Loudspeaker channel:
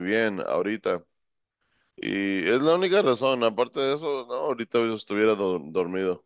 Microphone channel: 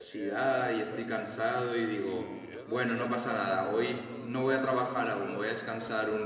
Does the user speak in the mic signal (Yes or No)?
Yes